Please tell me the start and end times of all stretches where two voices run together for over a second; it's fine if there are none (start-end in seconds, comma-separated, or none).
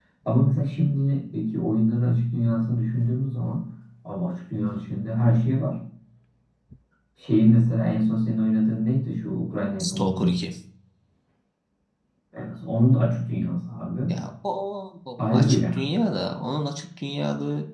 none